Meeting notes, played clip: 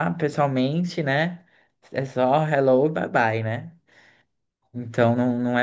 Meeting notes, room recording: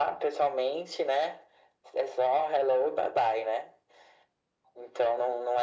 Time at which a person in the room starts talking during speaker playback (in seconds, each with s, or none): none